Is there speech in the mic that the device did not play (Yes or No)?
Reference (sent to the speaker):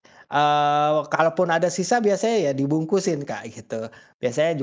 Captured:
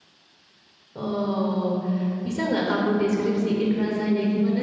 Yes